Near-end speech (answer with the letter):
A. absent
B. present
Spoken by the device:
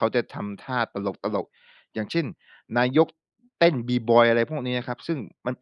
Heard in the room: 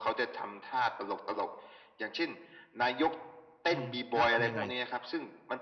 B